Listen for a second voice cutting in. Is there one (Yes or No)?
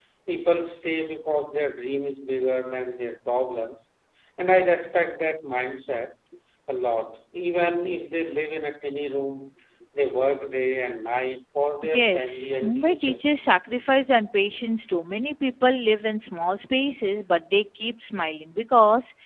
Yes